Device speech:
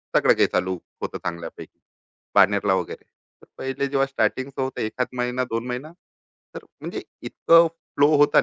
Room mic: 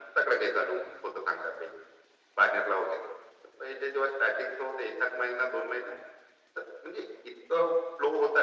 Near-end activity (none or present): none